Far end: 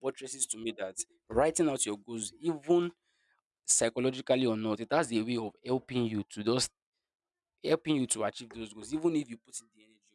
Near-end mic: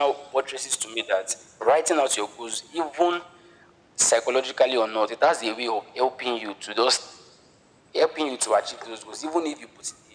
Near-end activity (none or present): none